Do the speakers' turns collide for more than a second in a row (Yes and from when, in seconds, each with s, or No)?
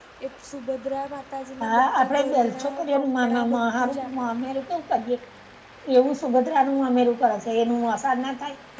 Yes, from 1.6 s